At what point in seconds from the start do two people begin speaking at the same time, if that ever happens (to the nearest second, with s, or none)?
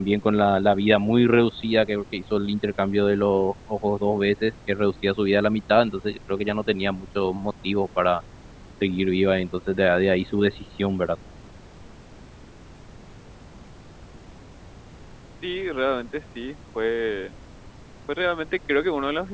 none